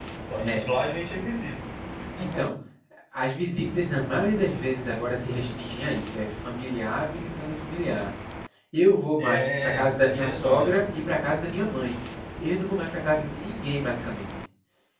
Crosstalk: present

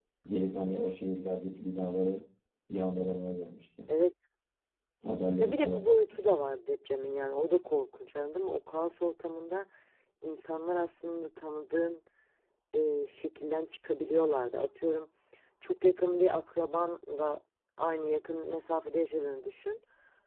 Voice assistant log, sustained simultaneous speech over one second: none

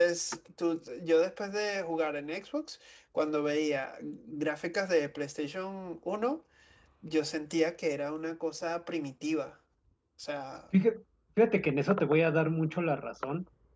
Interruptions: none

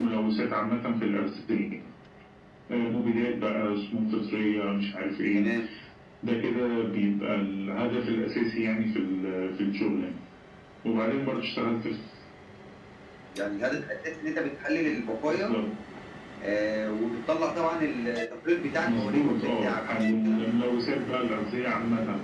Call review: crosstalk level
present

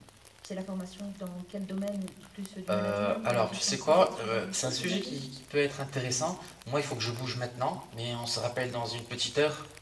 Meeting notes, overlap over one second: present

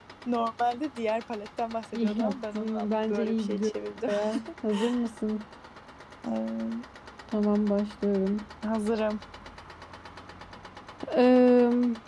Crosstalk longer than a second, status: present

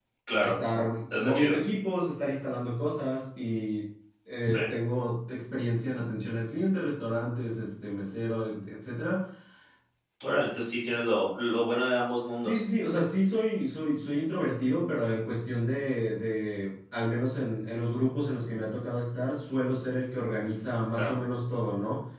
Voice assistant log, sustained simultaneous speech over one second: none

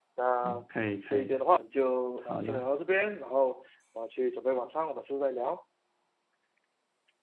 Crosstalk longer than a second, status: none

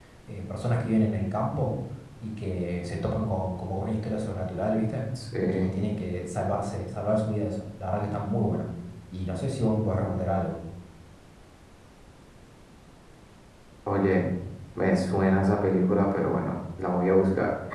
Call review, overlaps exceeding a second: none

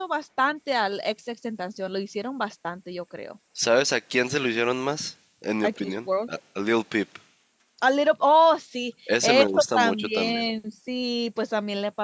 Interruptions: present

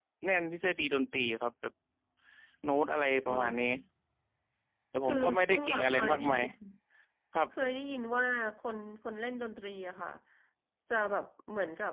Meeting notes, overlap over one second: present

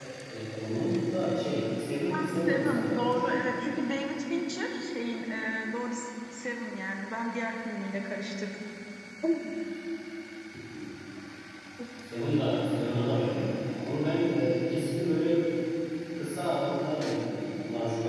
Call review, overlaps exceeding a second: present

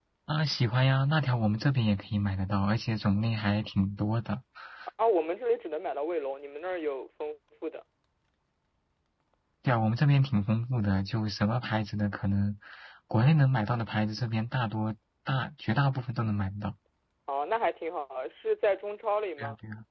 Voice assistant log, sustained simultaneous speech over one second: none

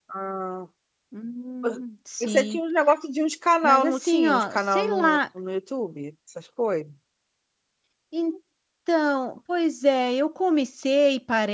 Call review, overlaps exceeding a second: present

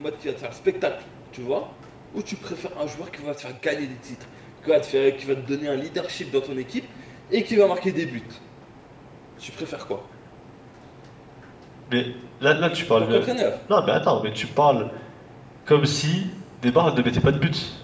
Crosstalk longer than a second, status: none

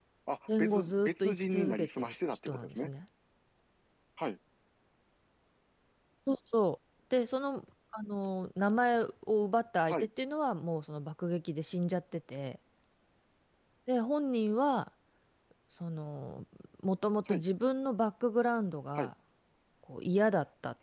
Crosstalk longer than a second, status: present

